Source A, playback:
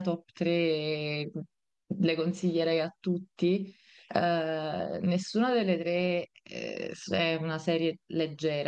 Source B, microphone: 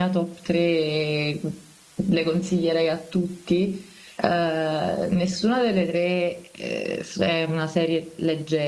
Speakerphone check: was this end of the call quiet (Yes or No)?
Yes